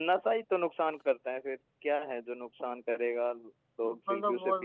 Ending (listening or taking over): taking over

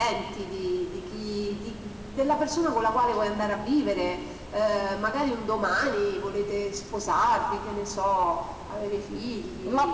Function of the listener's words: taking over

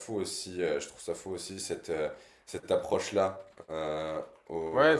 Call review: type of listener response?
taking over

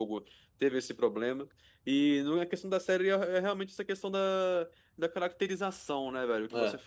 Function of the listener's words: listening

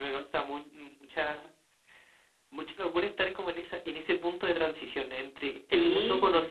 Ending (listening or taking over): listening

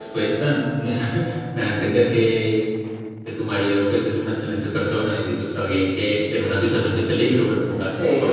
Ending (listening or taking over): taking over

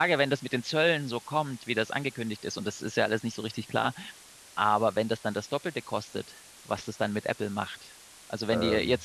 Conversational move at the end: listening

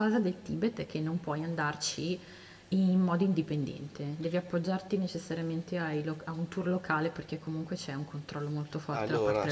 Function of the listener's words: taking over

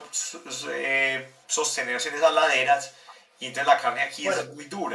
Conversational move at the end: listening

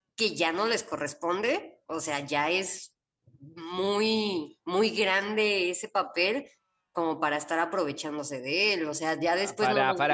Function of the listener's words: taking over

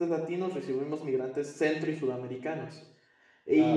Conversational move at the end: listening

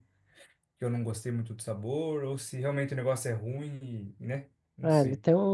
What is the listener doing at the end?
taking over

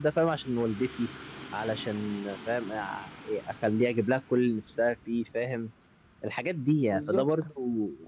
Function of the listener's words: listening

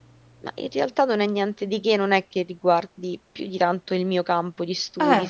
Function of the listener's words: listening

